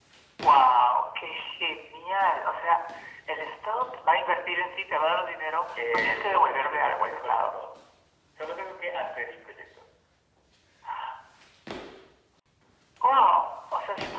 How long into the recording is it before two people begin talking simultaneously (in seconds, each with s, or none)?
5.8 s